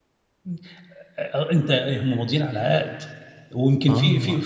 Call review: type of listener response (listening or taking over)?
listening